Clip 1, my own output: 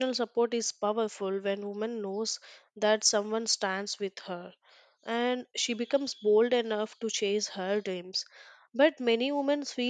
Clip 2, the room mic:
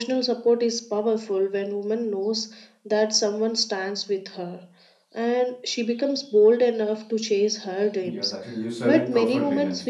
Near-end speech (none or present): present